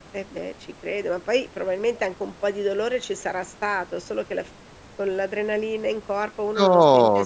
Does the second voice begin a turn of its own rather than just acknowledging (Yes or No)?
Yes